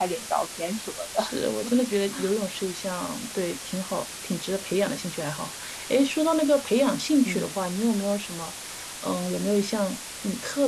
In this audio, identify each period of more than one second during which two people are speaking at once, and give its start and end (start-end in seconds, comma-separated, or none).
none